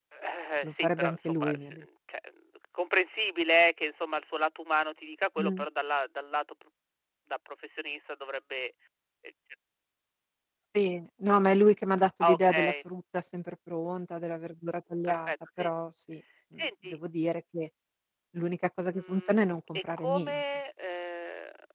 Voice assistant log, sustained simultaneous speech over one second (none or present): present